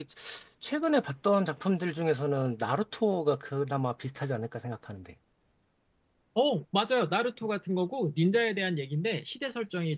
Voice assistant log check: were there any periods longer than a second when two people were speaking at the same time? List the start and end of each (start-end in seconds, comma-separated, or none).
none